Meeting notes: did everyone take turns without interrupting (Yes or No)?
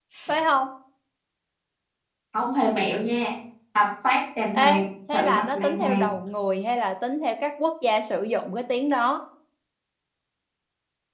No